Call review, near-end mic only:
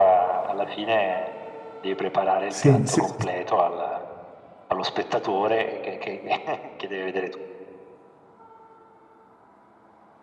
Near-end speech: present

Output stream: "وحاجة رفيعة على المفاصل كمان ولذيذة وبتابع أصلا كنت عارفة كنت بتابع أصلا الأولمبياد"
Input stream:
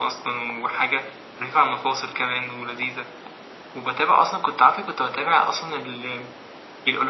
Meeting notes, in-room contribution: none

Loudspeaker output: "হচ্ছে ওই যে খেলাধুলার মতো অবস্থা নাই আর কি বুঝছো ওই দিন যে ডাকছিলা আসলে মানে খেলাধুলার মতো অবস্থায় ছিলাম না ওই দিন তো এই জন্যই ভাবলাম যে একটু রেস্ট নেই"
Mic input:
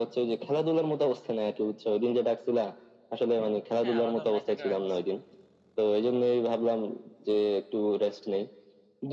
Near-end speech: present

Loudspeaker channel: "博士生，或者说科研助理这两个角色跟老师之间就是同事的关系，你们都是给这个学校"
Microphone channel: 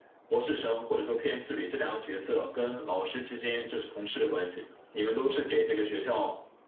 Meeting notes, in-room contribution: none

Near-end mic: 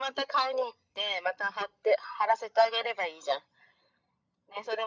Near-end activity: none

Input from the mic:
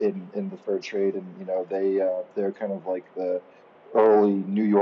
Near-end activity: none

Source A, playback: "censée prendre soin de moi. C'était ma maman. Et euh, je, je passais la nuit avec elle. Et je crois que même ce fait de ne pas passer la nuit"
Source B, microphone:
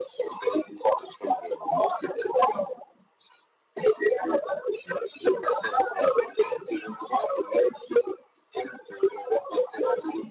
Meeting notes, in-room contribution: none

